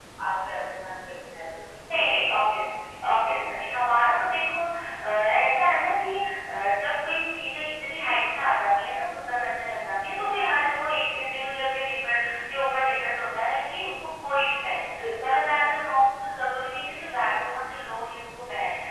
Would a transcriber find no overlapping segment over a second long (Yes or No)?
Yes